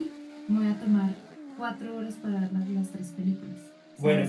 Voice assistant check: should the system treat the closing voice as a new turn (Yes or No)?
Yes